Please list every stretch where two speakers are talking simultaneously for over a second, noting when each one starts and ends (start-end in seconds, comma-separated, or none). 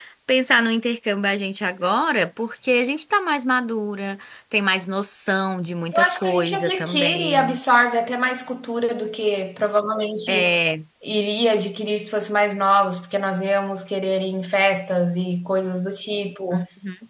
5.9-7.6